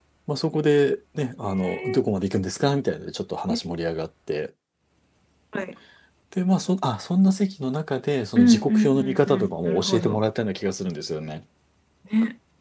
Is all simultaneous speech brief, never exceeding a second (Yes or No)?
No